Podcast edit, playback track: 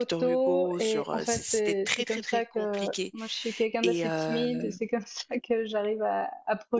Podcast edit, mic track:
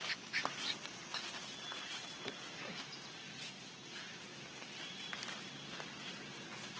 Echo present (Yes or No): No